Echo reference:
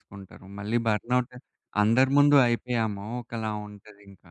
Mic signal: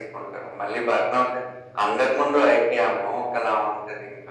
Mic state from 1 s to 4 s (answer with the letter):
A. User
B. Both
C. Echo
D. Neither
C